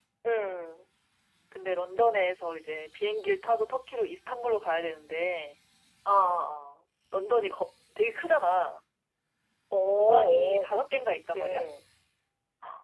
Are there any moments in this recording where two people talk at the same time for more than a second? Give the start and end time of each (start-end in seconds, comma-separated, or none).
9.9-11.4